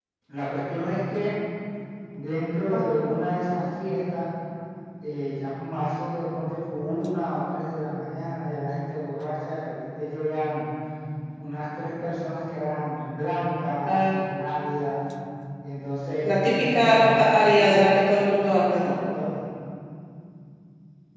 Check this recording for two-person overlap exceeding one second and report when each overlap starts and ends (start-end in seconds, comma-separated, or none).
16.4-18.0